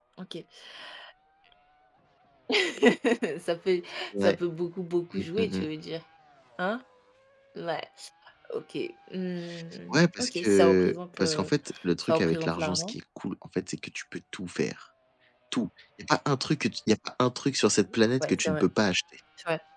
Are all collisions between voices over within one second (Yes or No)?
No